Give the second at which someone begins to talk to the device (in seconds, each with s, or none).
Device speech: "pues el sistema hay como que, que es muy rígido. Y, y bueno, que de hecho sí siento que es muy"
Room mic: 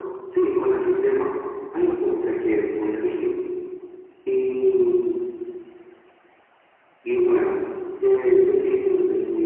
1.8 s